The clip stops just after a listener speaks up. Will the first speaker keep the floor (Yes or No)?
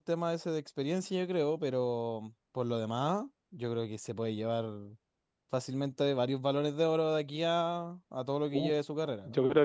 No